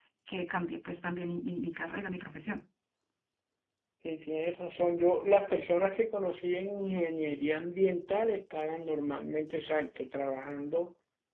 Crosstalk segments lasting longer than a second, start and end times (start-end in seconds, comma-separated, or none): none